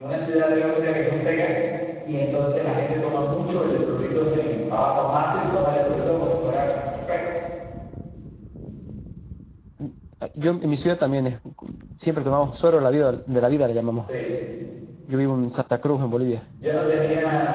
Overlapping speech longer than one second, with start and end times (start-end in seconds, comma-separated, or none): none